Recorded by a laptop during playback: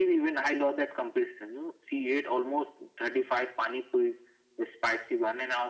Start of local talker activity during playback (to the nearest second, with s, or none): none